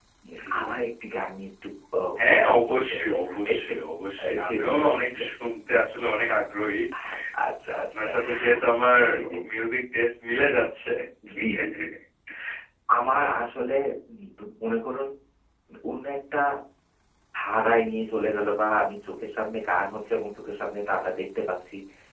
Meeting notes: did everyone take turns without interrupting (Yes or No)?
No